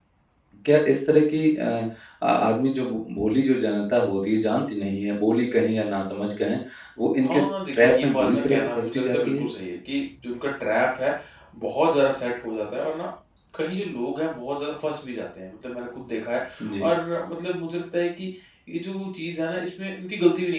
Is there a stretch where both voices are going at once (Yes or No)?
Yes